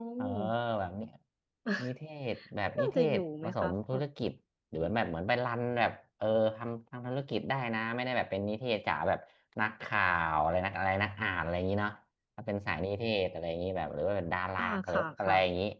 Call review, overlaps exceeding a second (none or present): present